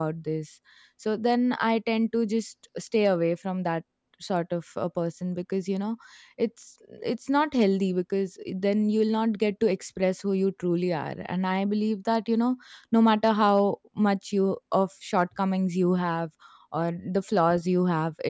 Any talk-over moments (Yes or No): No